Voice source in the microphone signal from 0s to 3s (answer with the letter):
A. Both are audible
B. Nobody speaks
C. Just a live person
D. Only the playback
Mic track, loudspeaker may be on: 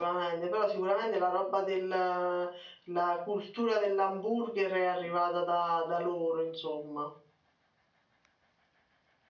C